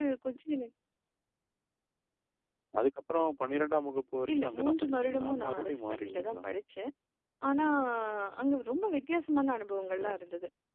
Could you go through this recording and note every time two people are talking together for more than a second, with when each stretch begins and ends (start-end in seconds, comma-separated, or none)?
4.3-6.4